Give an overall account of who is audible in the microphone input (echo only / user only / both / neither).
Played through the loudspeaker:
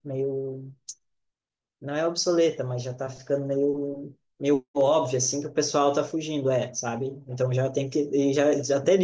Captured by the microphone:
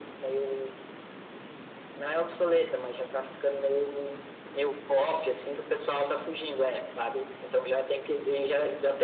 echo only